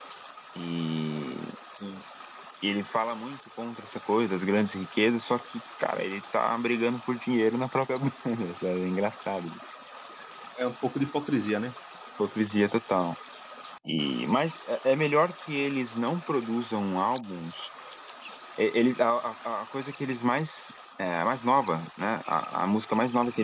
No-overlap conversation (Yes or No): Yes